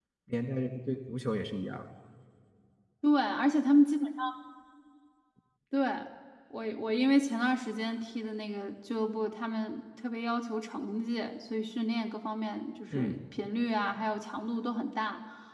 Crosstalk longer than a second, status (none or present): none